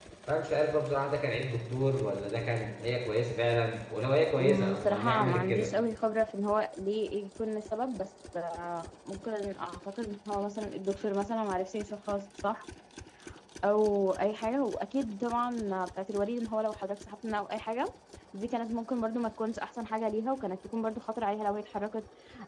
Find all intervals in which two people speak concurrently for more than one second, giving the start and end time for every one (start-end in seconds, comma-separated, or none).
4.4-5.7